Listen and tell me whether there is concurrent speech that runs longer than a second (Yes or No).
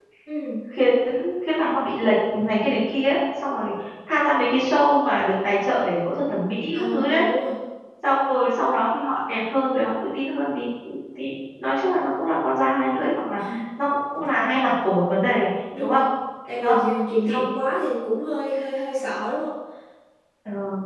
No